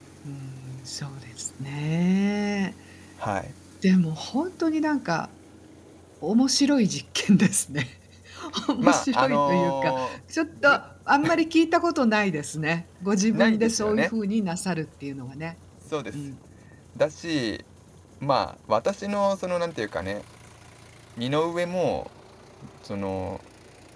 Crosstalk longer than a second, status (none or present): present